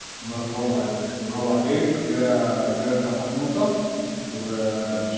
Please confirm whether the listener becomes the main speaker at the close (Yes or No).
No